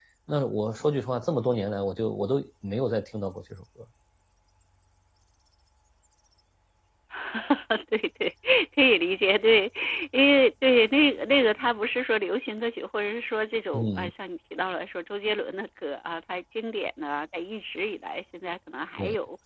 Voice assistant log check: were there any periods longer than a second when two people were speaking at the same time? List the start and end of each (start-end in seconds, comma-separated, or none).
none